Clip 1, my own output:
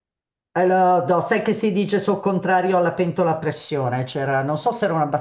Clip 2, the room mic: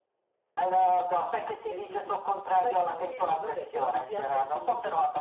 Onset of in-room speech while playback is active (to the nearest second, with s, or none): 2 s